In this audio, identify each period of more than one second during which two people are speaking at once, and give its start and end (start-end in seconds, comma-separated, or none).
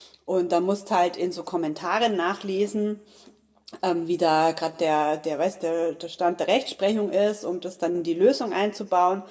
none